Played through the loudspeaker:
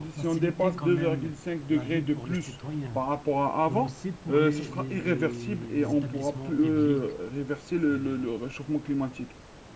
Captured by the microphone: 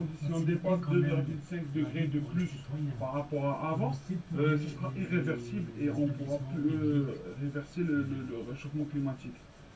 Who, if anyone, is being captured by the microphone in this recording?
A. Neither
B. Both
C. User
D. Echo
D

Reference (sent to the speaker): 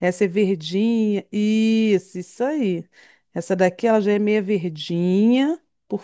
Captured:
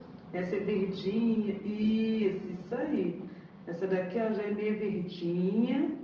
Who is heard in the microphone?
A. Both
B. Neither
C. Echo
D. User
C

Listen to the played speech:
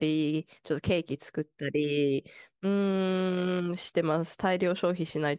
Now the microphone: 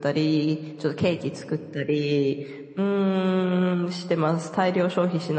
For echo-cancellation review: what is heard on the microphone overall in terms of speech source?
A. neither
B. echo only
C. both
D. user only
B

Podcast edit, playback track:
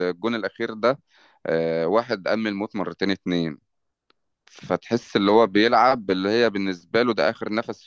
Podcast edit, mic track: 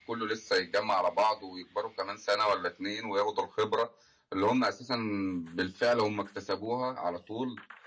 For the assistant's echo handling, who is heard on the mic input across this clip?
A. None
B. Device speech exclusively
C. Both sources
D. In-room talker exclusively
D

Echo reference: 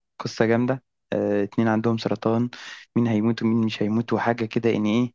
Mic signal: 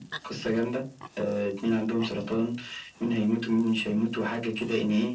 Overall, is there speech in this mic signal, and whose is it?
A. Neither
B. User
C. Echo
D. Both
C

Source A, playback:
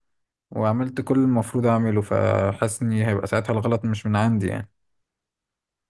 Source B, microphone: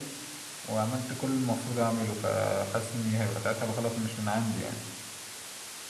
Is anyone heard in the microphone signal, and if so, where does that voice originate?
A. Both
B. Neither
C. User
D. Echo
D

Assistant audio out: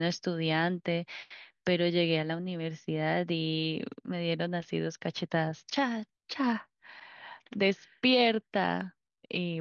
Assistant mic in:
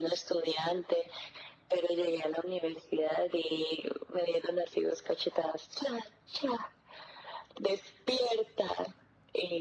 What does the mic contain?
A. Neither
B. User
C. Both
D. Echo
D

